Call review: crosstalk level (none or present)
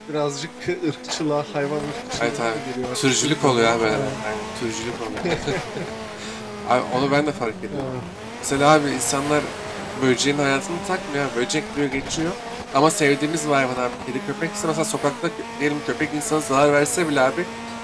present